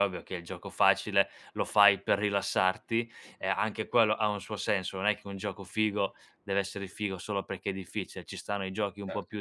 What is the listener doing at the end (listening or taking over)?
listening